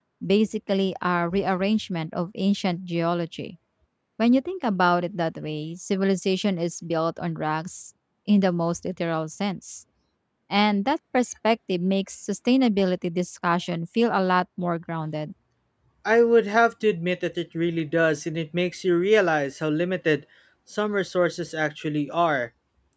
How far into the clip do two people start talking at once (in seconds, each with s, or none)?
none